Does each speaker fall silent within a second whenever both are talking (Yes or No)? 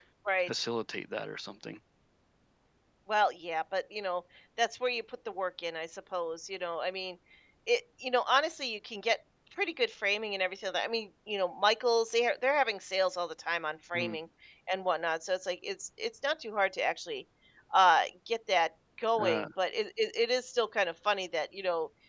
Yes